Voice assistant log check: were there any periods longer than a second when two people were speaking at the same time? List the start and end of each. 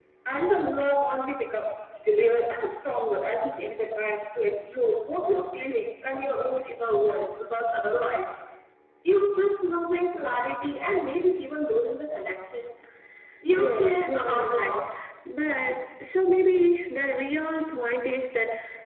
13.5-14.8

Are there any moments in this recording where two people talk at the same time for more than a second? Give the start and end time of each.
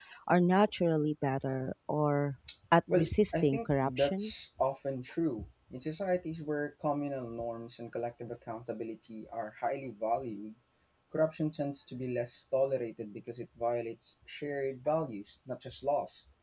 2.9-4.3

